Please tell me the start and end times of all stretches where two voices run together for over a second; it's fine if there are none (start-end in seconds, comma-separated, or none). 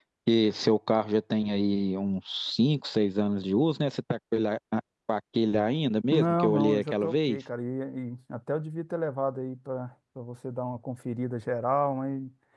6.1-7.4